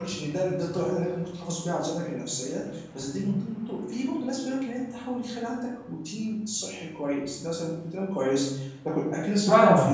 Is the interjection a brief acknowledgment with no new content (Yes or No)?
Yes